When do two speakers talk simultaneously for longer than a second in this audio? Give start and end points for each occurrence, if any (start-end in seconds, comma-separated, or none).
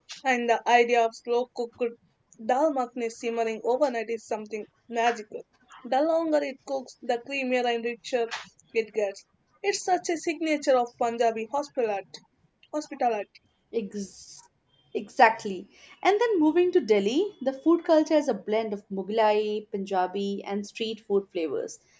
none